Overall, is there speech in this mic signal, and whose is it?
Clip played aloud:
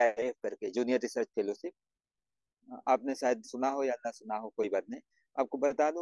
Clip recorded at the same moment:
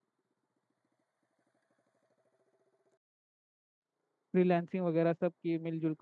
user only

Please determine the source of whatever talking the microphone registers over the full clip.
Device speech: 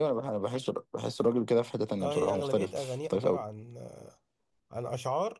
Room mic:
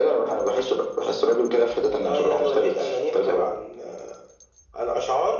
echo only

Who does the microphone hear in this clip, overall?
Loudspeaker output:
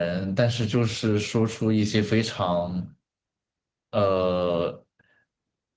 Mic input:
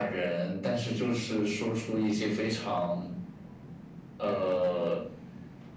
echo only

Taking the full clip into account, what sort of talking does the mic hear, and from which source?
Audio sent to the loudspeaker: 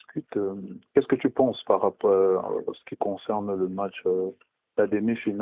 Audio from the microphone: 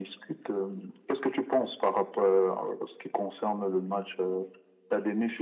echo only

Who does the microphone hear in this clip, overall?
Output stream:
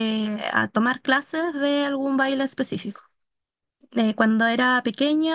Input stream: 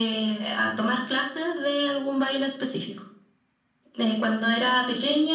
echo only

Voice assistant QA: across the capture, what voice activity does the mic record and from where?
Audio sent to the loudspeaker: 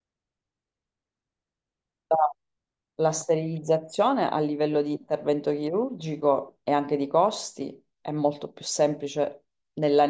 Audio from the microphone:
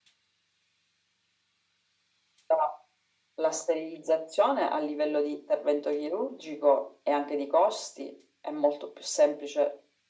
echo only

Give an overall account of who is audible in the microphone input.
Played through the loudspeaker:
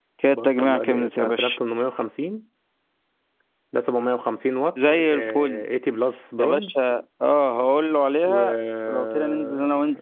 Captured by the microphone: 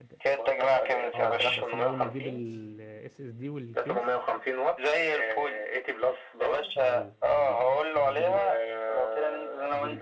both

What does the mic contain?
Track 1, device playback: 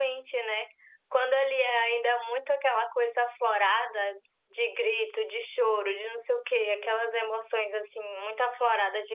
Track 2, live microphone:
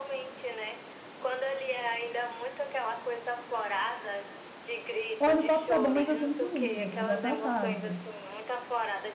both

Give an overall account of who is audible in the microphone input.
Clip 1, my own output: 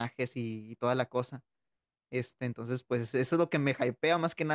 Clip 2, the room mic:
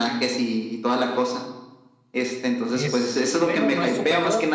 both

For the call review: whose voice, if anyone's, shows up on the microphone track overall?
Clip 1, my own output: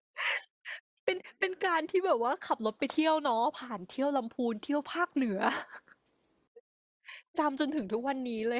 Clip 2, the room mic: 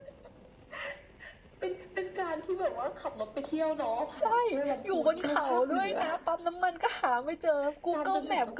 both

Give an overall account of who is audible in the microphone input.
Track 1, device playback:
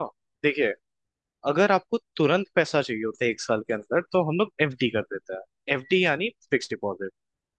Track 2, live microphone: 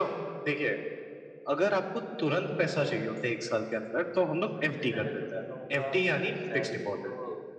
both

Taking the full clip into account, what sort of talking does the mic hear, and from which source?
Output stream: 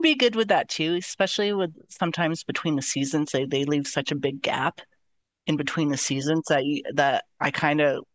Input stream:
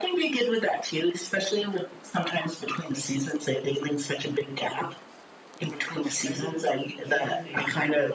both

